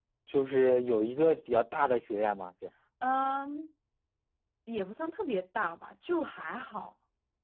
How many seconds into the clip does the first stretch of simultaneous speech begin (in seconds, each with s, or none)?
none